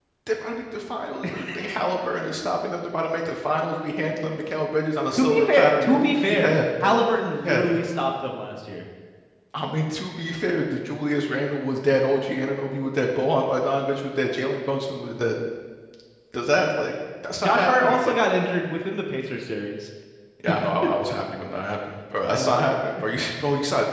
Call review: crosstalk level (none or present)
present